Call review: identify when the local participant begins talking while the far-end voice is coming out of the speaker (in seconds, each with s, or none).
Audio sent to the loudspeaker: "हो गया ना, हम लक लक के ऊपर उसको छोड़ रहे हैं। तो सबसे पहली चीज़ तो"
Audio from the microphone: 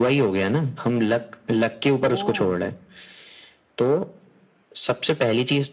2.0 s